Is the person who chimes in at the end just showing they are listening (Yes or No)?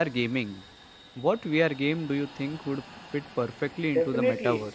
No